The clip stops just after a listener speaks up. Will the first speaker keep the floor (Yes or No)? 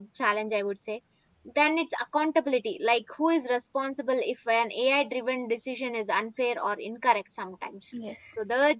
Yes